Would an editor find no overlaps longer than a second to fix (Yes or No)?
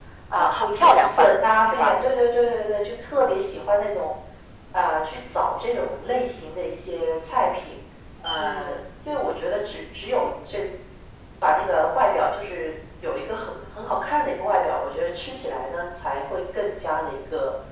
No